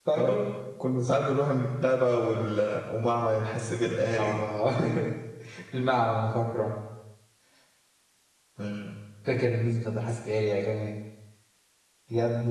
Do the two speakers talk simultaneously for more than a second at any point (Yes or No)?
No